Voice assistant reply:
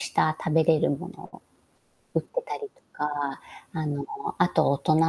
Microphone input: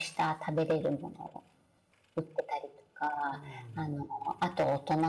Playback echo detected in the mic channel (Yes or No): Yes